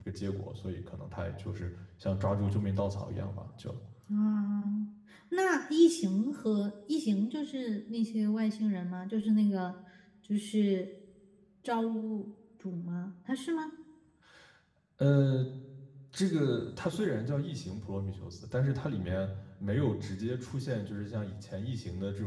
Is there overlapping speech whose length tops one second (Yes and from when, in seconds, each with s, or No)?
No